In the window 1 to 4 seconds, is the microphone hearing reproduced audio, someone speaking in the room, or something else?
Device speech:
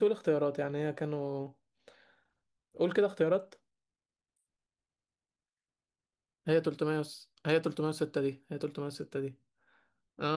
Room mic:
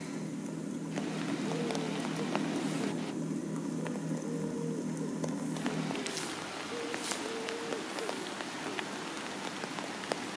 neither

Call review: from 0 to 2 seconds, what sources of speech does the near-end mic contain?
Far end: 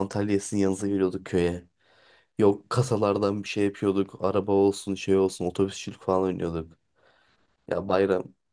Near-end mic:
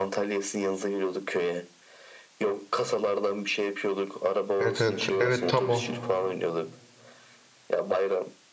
echo only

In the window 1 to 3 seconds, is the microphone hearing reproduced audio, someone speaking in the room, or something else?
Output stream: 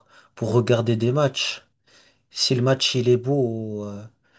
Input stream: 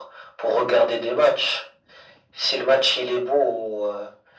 echo only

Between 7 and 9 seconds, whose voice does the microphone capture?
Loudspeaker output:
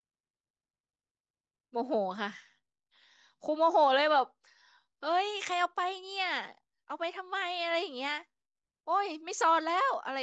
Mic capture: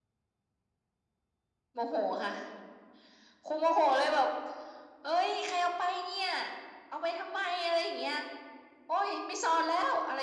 echo only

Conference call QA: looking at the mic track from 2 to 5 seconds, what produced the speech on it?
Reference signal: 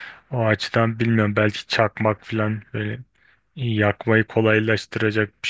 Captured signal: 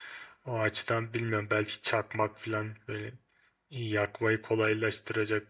echo only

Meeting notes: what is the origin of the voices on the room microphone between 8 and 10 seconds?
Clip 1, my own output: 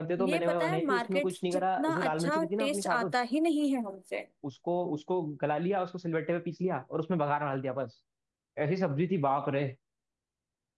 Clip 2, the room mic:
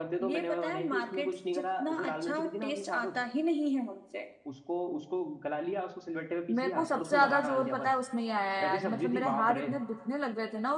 both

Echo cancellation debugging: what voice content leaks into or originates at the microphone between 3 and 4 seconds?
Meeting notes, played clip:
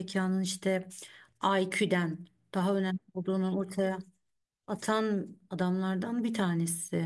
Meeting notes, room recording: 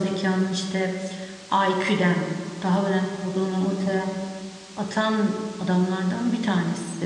echo only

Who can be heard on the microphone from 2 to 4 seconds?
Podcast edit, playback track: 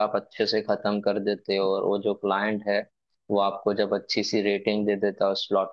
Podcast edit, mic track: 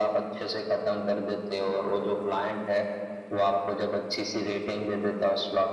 echo only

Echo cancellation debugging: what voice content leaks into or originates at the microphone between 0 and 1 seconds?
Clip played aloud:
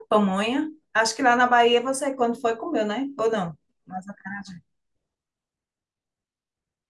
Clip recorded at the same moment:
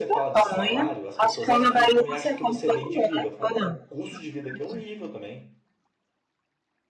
both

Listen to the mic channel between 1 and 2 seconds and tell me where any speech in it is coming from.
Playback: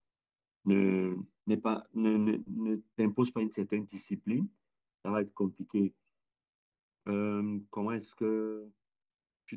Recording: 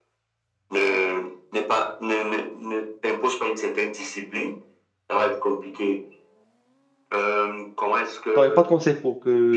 echo only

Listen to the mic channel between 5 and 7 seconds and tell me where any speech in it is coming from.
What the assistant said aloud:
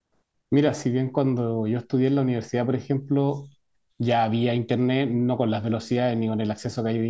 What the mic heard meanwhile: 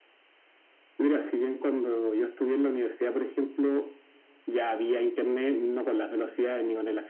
echo only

